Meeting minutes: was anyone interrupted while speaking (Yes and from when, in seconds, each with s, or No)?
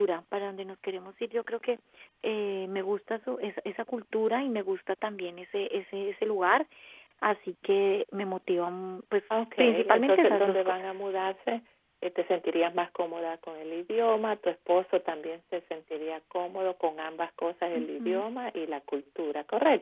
Yes, from 9.6 s